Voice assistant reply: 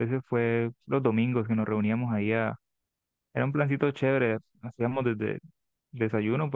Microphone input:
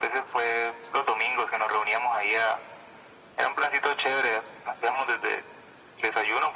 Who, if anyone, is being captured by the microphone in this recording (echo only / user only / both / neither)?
echo only